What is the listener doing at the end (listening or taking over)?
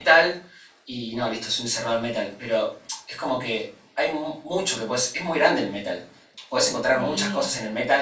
listening